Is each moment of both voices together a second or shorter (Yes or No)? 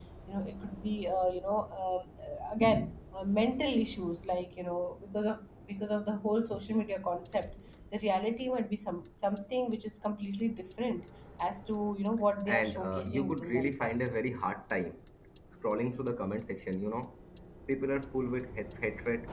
No